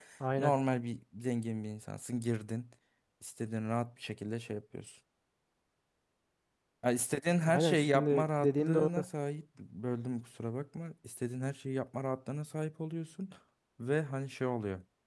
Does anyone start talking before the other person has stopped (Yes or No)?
Yes